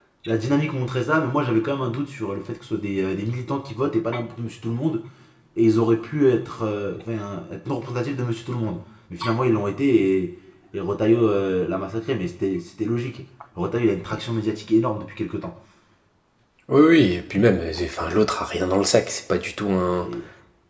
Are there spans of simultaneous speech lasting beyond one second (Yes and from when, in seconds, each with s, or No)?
No